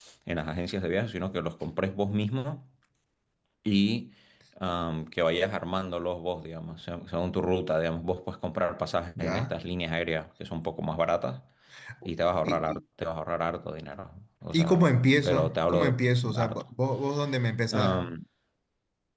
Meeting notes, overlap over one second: present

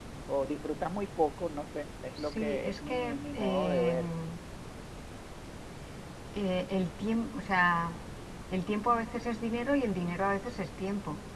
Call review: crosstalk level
present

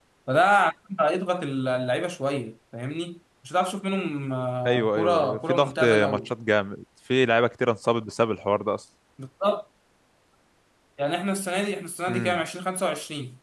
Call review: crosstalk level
present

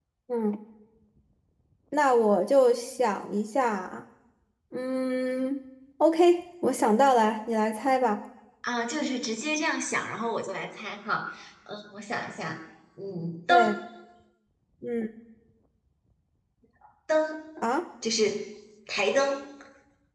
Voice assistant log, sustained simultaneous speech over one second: none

